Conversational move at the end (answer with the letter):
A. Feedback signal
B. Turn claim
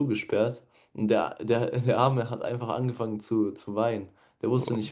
A